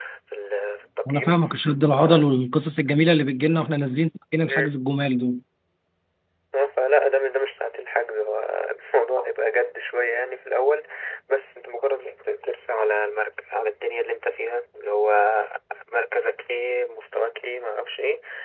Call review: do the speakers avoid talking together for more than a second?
Yes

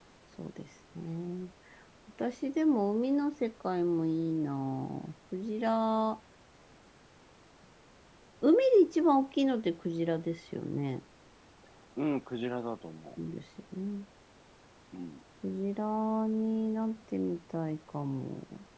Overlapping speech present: No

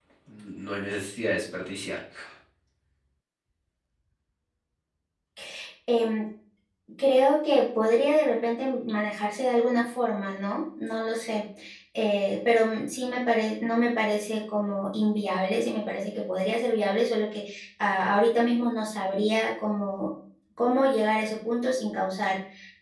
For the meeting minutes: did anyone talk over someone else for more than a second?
No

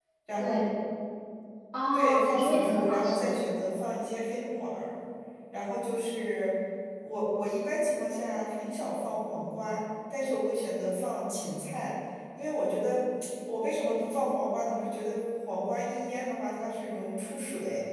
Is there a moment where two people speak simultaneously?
Yes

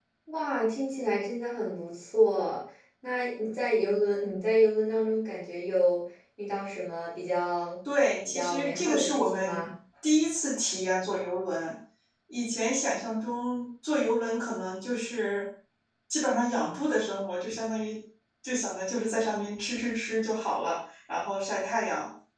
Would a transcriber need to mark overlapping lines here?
Yes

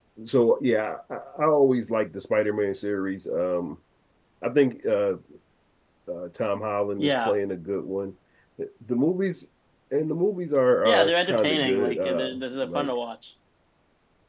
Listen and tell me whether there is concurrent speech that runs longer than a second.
Yes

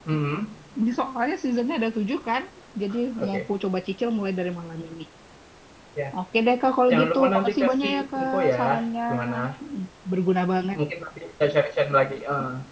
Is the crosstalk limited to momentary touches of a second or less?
No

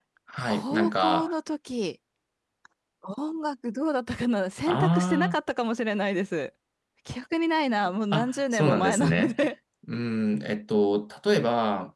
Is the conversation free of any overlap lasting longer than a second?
No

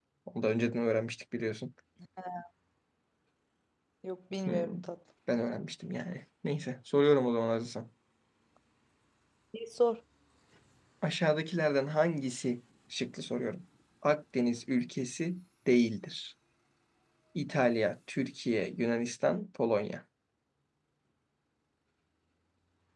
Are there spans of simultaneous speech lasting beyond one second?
No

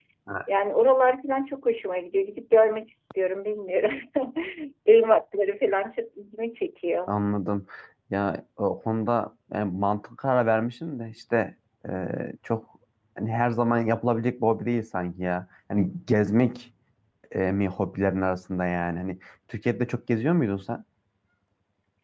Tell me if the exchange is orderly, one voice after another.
Yes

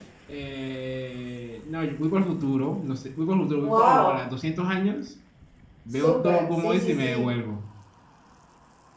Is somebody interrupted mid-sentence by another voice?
Yes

